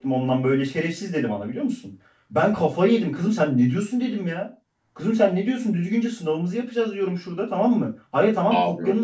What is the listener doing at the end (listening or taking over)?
listening